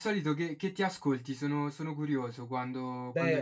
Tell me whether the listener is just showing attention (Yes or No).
No